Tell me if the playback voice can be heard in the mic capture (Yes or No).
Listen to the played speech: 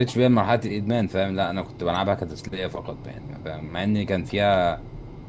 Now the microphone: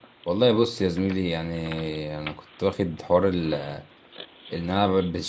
No